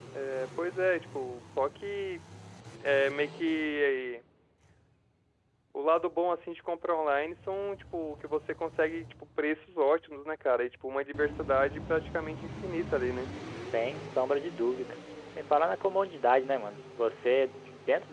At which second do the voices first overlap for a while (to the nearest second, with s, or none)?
none